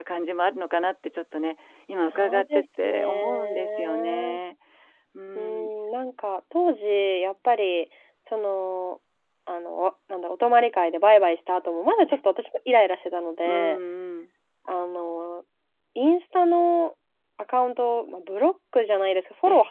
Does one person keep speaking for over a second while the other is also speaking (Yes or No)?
Yes